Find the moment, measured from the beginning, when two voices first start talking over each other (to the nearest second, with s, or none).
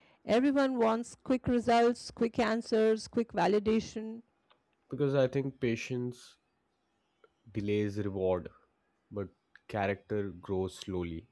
none